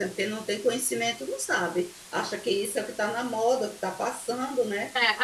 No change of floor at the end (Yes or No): No